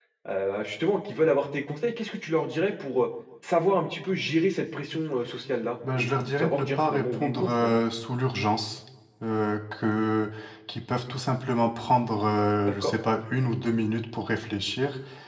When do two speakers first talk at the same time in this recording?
6 s

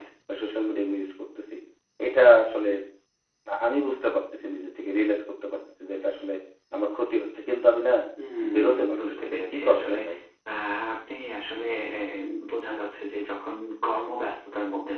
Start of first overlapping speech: 9 s

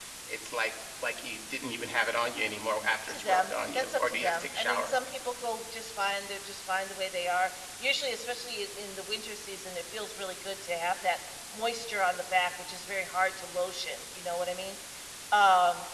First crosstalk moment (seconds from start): 3 s

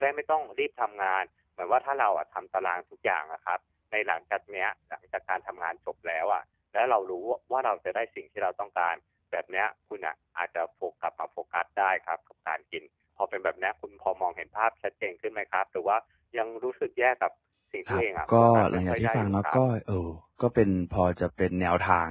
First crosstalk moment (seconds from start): 18 s

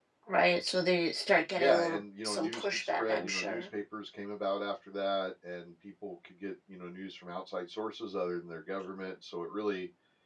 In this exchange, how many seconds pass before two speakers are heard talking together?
2 s

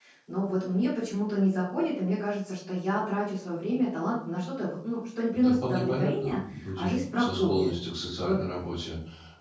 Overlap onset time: 5 s

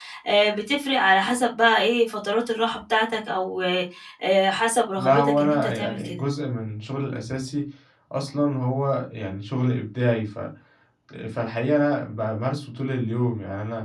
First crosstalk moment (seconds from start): 5 s

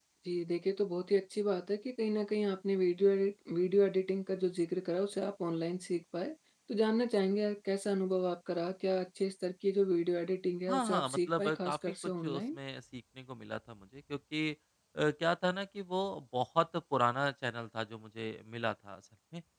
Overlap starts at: 11 s

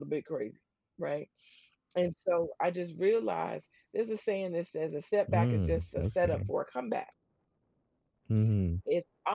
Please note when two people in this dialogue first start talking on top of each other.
5 s

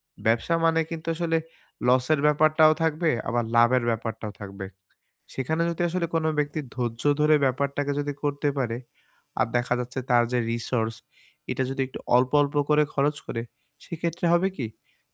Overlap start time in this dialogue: none

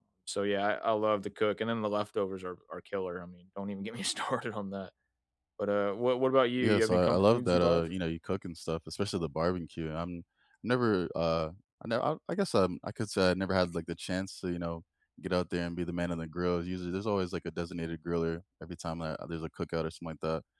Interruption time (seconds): 7 s

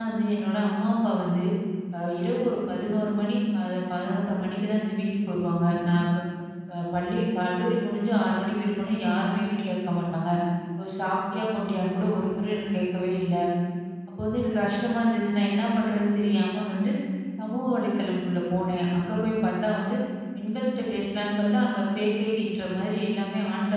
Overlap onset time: none

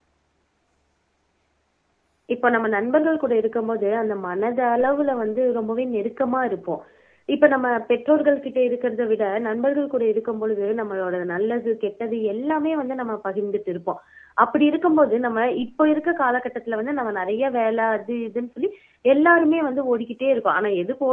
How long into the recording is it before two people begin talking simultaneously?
none

